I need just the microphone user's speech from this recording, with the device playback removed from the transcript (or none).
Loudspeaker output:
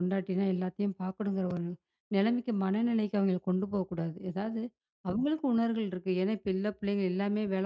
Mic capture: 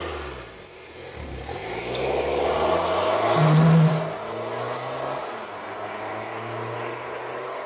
ஆமாங்க.